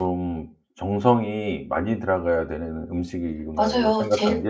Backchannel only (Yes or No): No